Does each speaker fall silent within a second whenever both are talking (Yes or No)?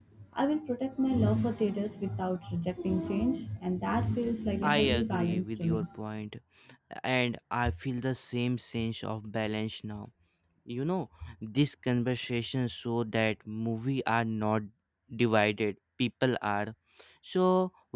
No